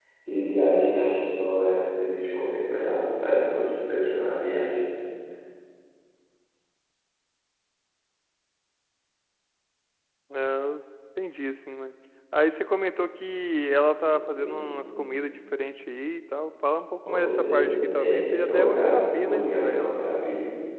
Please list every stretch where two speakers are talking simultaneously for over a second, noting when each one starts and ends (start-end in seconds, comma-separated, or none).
13.9-15.2, 17.0-19.9